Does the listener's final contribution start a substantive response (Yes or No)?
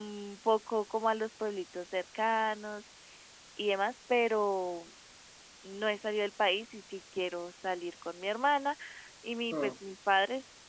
No